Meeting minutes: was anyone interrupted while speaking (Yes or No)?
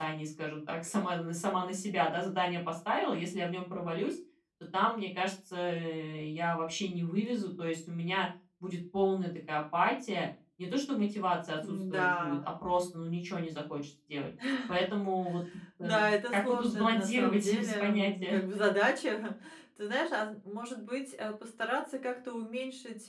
Yes